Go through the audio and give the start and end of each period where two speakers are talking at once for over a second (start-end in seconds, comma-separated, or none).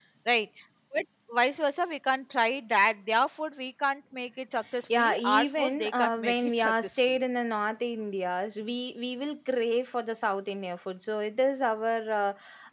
4.9-7.2